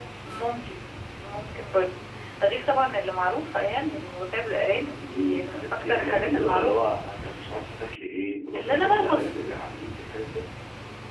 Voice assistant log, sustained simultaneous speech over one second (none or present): present